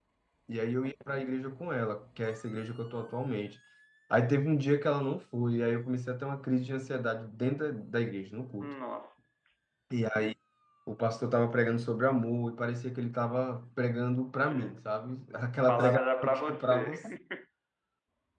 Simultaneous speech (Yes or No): Yes